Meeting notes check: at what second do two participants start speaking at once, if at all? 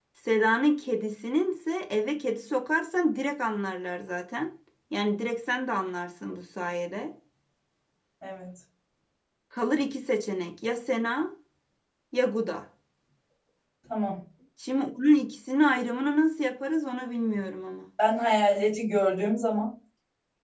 none

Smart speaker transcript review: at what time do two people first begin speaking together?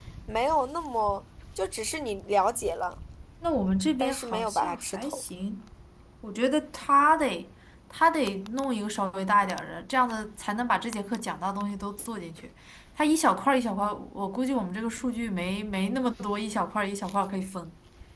4 s

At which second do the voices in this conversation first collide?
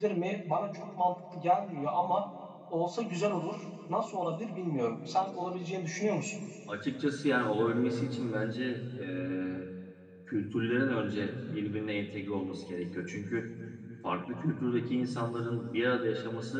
none

